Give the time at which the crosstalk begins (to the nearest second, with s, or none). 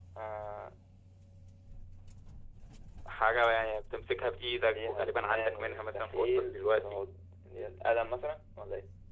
5 s